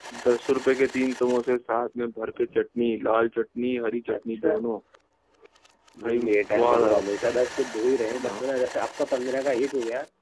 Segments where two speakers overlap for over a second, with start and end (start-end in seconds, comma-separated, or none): 6.0-7.3